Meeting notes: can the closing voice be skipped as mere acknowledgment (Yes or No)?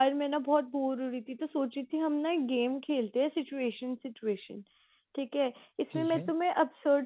Yes